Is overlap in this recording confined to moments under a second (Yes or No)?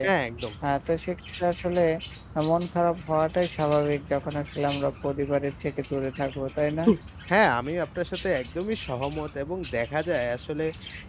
Yes